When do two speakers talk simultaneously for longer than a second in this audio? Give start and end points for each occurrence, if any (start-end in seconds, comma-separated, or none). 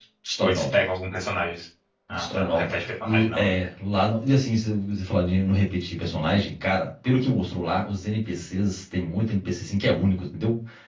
2.2-3.5